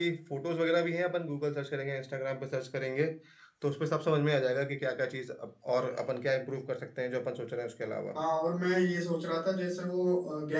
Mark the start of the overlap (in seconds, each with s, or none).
none